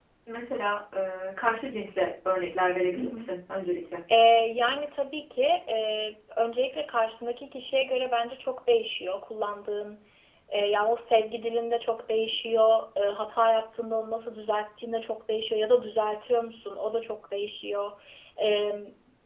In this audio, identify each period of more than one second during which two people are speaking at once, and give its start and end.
none

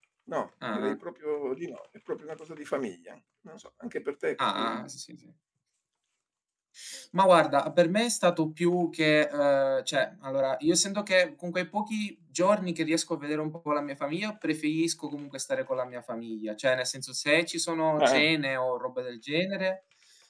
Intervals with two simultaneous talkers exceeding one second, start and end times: none

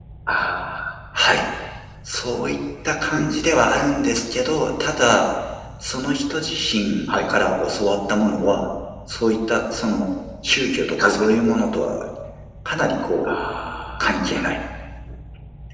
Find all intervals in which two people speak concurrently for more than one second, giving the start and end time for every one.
none

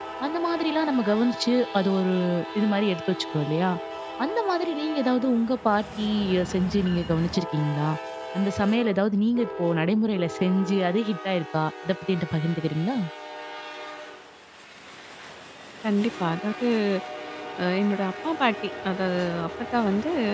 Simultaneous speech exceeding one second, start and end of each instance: none

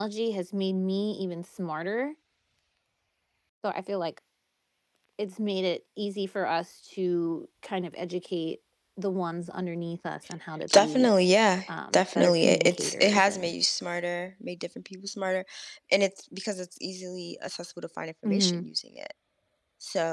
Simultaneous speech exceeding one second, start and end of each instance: 11.7-13.5

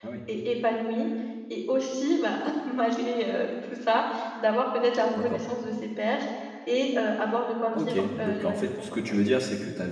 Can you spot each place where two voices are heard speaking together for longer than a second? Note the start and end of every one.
7.7-9.3

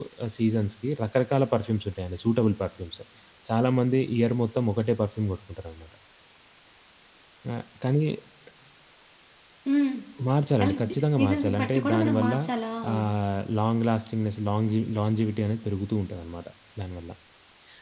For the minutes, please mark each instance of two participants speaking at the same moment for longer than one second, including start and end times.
10.7-12.3

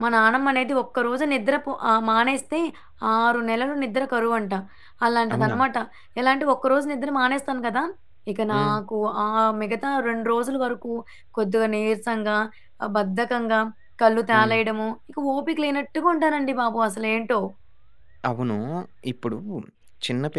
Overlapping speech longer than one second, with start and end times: none

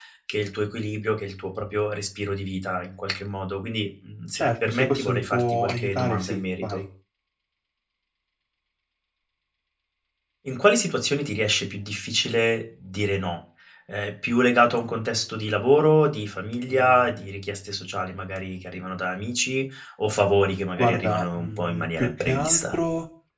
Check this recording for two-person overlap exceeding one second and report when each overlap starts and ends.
4.3-6.8, 20.8-22.8

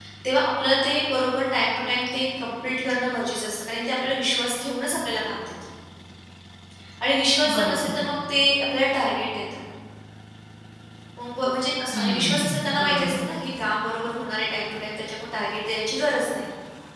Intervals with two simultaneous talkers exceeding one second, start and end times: 11.9-13.2

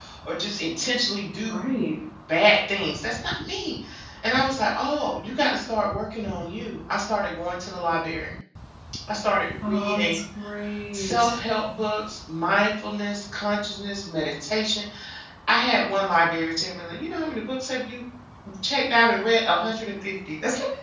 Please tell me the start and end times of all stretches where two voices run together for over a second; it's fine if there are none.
none

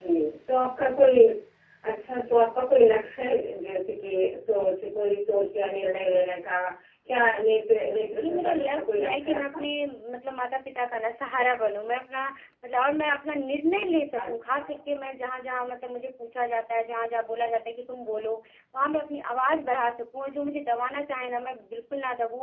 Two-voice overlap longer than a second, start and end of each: 8.2-9.6

